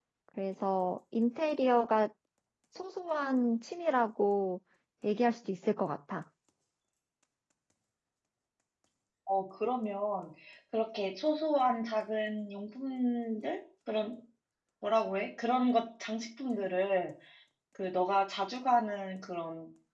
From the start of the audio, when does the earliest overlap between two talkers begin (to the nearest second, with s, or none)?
none